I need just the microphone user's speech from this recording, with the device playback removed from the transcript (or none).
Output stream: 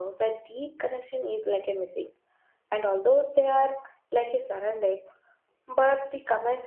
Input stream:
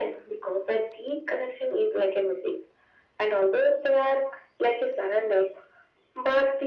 none